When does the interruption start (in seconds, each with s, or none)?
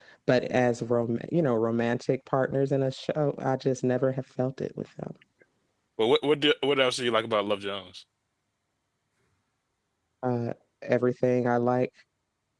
none